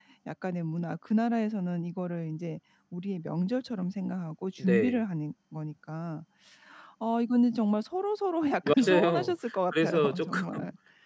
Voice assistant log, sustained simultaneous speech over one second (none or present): present